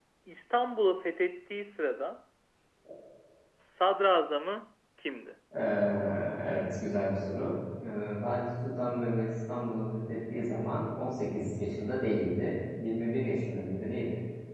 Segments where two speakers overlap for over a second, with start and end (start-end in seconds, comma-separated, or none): none